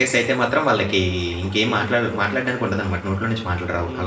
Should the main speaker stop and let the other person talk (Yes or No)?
Yes